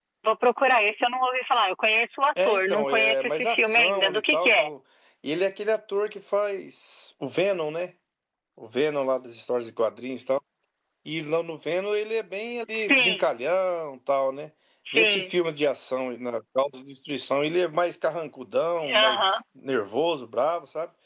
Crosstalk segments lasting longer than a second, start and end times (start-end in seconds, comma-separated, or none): 2.4-4.7